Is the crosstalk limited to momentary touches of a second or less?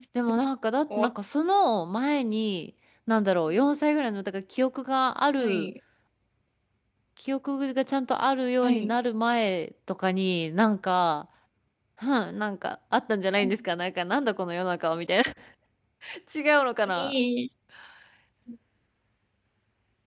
Yes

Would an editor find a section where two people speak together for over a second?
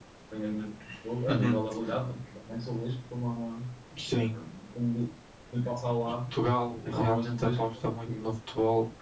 Yes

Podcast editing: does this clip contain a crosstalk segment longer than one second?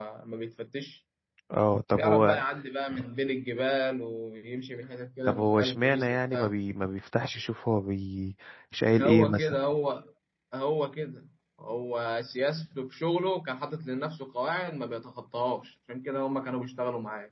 Yes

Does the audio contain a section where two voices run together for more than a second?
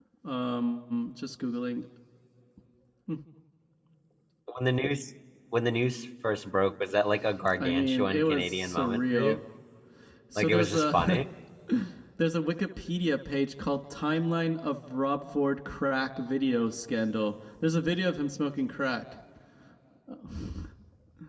Yes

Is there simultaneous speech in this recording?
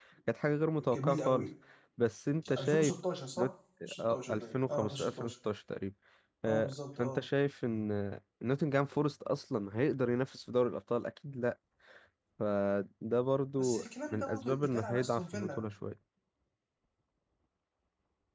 Yes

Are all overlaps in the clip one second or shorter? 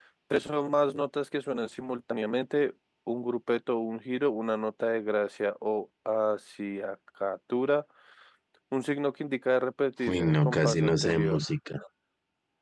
No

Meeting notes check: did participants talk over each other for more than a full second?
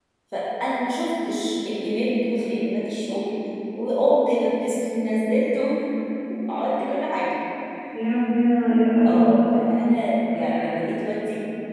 No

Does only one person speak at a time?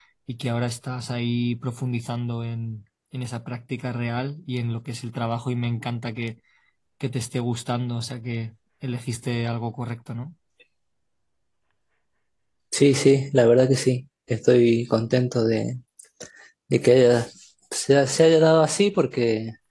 Yes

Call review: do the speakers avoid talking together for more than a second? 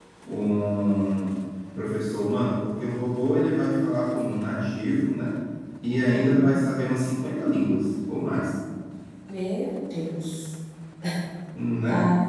Yes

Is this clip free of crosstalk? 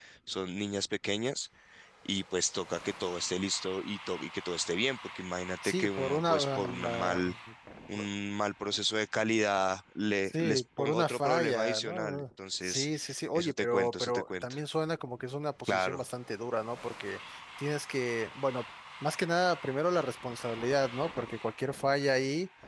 No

